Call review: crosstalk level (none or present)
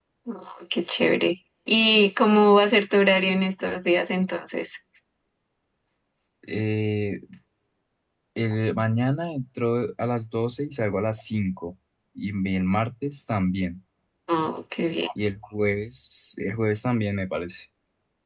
none